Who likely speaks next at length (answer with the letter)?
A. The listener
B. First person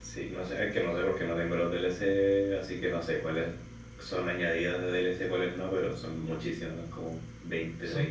A